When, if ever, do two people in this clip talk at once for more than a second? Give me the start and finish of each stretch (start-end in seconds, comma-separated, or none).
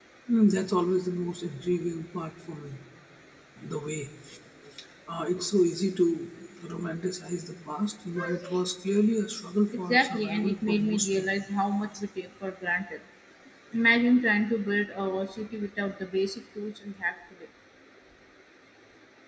9.9-11.2